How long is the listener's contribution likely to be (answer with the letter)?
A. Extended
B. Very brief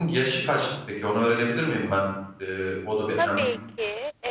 A